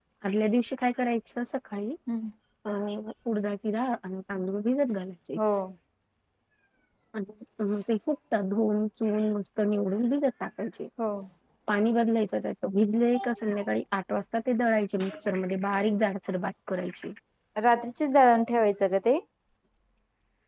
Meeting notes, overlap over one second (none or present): none